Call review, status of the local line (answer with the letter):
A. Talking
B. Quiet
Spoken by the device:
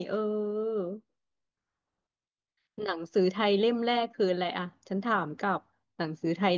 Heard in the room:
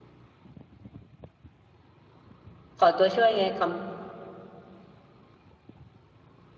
A